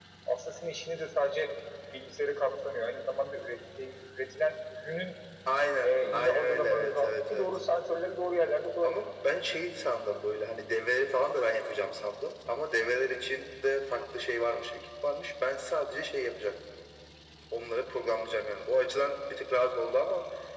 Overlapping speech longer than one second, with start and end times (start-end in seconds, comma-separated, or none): 5.8-7.5